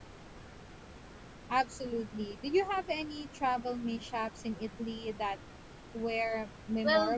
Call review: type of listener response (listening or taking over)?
taking over